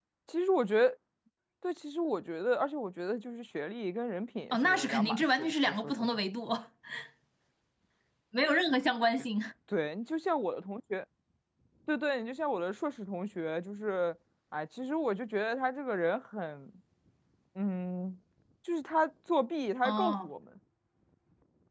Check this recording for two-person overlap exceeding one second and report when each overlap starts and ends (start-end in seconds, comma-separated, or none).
4.5-5.9